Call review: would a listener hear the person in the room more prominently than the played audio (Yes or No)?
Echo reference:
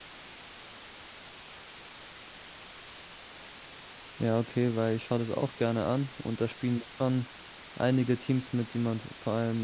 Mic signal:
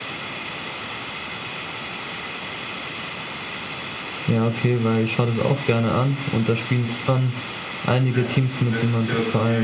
No